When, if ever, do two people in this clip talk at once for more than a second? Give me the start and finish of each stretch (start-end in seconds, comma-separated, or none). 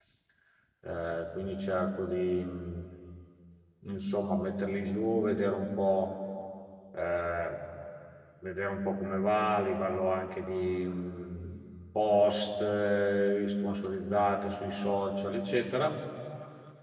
none